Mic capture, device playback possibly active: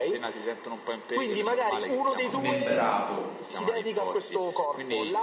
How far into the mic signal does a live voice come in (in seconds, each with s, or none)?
2.2 s